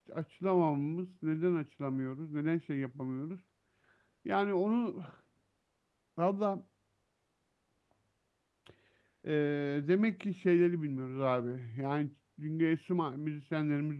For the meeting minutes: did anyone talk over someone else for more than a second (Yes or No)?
No